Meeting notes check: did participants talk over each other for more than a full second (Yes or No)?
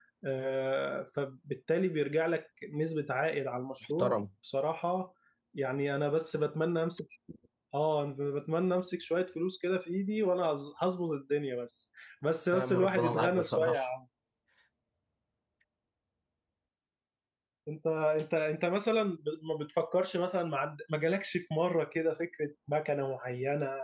Yes